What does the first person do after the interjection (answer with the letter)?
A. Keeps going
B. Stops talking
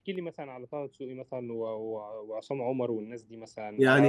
A